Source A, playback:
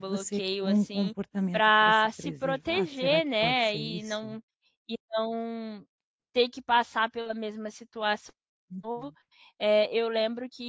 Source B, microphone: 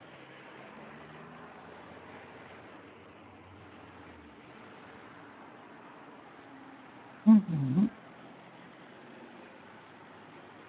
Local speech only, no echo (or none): Uhum.